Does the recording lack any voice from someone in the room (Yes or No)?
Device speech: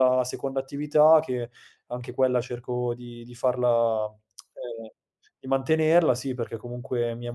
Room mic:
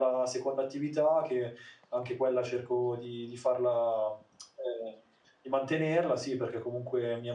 Yes